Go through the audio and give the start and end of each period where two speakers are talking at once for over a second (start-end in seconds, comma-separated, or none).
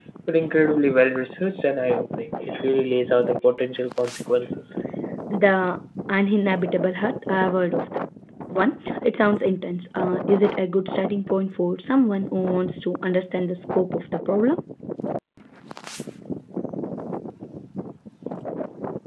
none